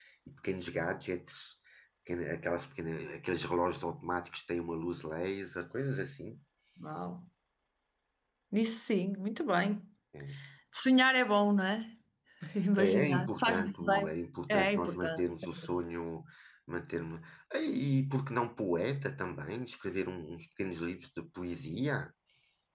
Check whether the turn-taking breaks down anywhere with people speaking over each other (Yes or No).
Yes